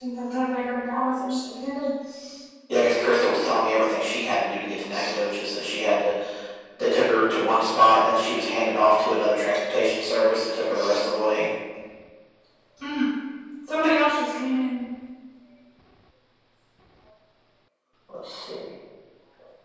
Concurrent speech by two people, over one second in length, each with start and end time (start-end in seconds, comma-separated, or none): none